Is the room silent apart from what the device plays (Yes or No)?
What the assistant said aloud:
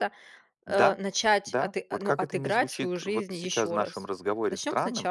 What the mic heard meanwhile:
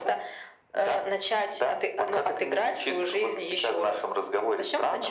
Yes